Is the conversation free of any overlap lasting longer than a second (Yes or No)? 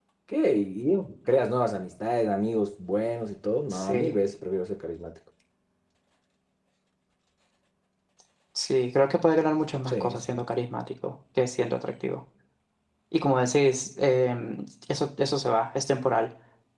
Yes